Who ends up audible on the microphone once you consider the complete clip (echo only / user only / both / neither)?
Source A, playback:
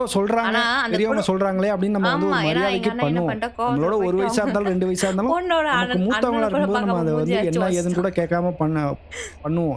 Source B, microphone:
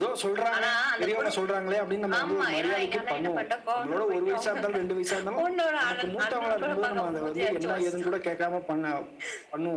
echo only